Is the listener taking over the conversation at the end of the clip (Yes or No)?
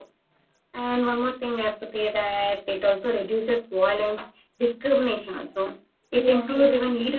No